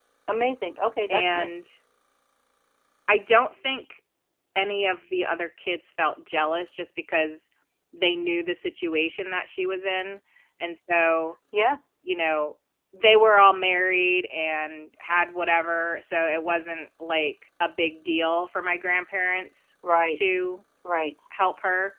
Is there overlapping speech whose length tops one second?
No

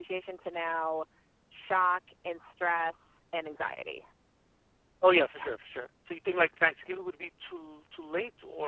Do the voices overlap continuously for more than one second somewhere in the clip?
No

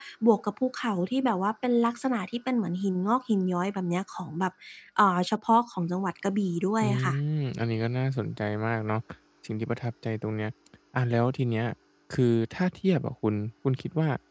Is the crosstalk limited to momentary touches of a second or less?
Yes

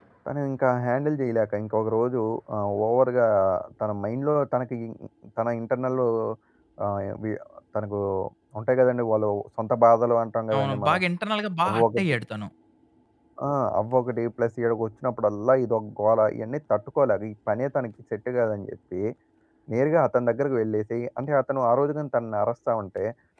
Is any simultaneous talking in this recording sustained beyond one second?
No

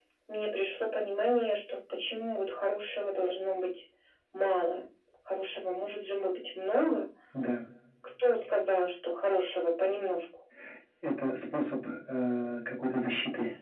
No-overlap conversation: Yes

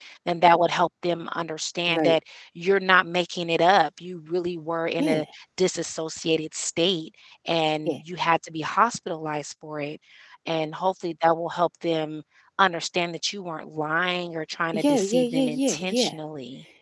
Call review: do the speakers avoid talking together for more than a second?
No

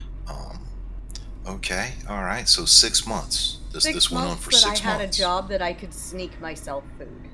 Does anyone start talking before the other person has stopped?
Yes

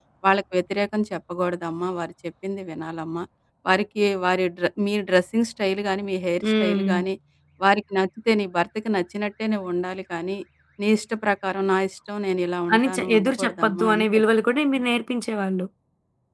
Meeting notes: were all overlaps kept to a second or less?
No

